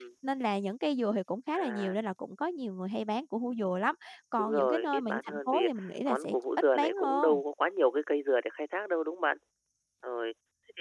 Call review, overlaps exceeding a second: present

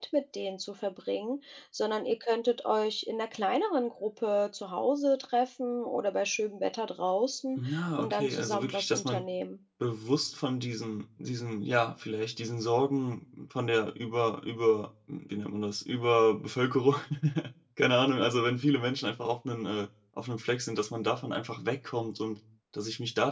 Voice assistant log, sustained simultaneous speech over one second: present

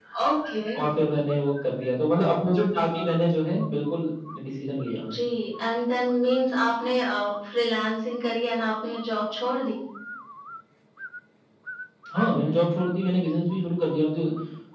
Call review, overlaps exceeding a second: none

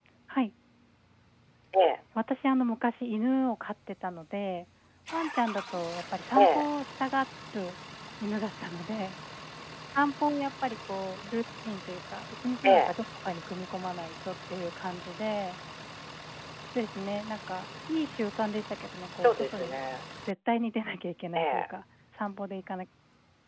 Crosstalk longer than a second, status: none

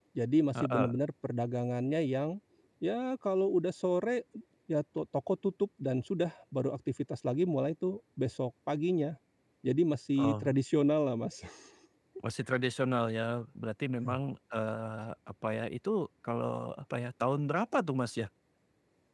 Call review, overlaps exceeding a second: none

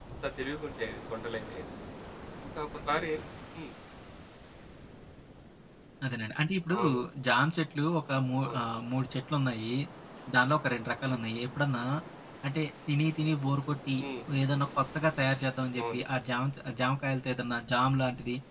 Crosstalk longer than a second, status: none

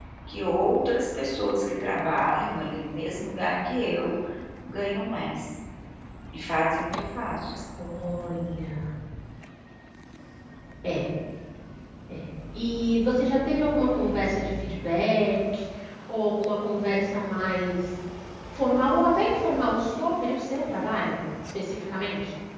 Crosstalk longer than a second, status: none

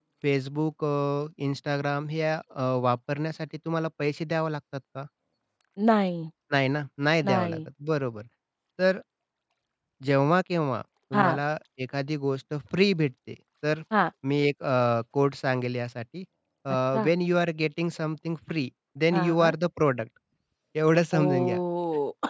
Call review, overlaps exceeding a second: none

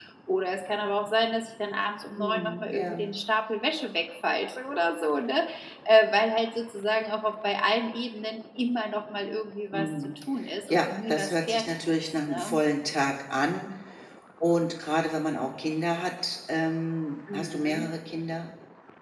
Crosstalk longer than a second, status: present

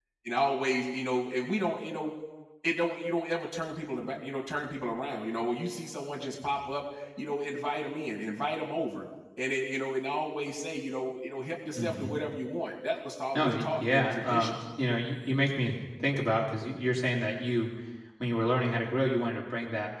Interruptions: present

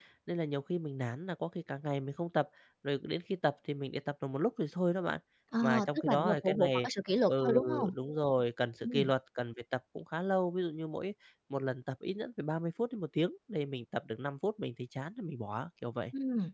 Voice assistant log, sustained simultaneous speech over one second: present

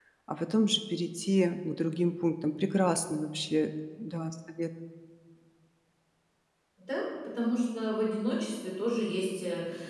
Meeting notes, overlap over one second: none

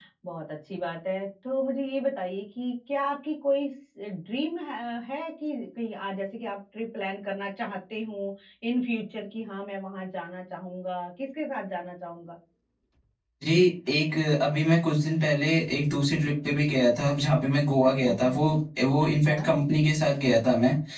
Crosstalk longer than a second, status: none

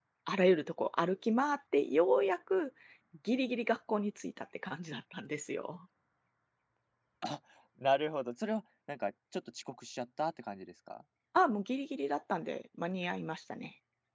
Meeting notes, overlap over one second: none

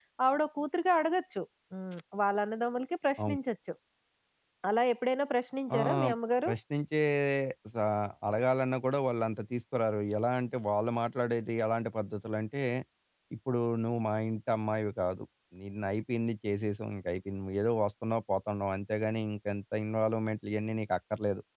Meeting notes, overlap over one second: none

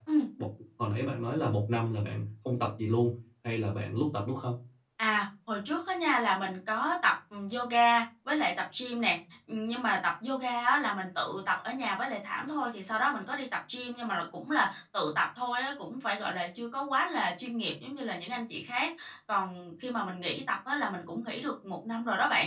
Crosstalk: none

